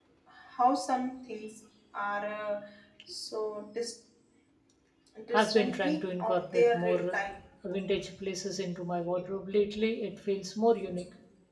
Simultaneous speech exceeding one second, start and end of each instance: 5.3-7.1

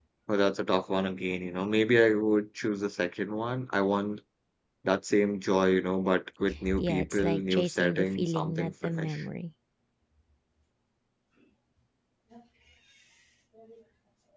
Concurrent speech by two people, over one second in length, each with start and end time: 6.7-9.2

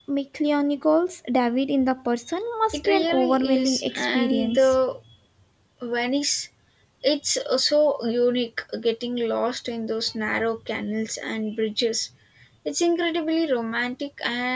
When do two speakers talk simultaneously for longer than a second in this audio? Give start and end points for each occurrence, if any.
2.7-4.8

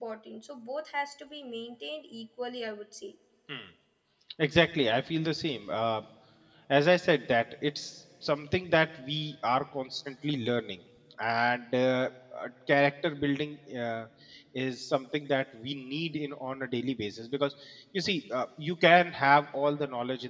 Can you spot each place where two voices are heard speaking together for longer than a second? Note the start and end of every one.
none

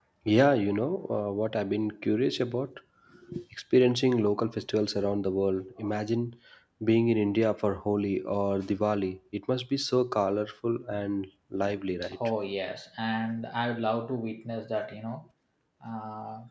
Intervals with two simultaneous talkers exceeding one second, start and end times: none

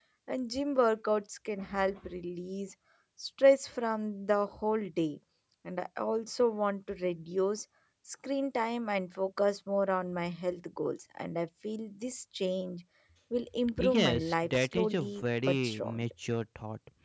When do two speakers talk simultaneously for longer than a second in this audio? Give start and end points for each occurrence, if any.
13.8-16.0

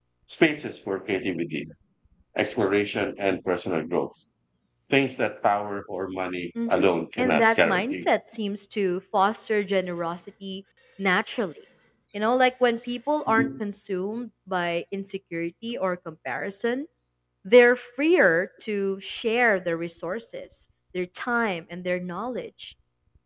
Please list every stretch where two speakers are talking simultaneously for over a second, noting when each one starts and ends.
6.7-8.1

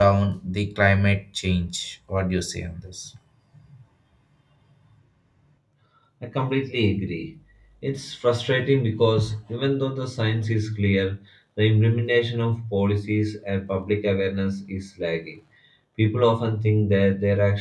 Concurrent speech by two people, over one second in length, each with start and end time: none

